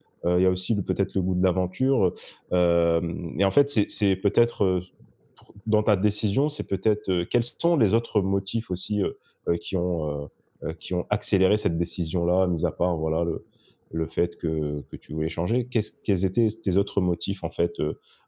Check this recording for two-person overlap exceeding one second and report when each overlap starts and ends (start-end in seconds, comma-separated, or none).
none